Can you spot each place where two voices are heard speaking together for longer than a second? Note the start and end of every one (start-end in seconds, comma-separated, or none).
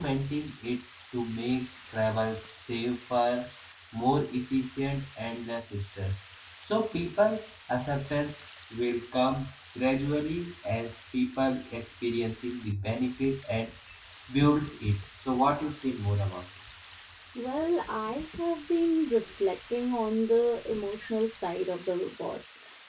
none